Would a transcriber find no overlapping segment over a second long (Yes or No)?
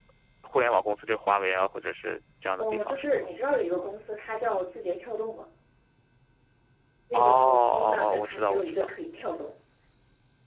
No